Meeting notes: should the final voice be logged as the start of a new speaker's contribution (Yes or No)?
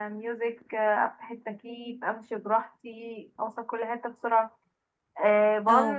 No